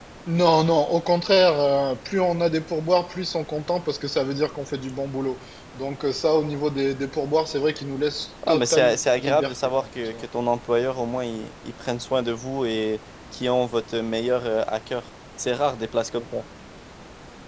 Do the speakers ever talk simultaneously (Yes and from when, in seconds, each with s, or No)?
Yes, from 8.4 s